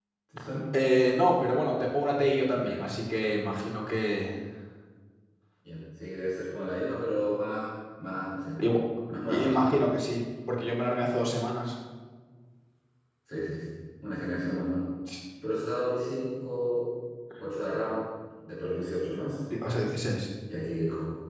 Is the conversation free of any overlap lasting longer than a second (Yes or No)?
Yes